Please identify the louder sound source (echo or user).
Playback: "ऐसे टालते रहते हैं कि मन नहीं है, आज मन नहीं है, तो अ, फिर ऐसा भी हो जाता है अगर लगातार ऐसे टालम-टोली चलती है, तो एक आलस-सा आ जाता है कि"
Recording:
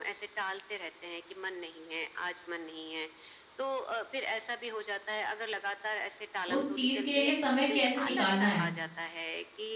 user